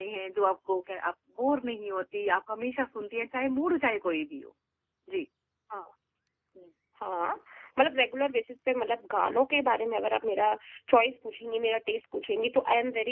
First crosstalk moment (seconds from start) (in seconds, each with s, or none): none